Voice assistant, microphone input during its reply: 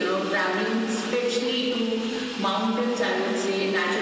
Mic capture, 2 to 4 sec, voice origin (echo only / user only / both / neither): echo only